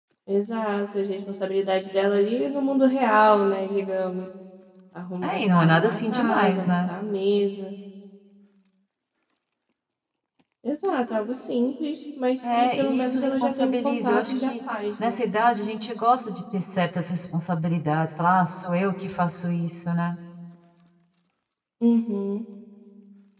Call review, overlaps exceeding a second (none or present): present